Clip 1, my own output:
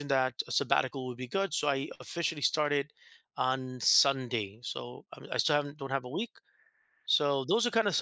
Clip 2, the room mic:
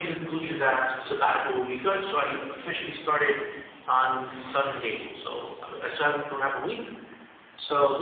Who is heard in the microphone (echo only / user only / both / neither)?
echo only